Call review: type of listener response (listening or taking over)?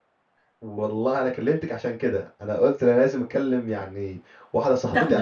listening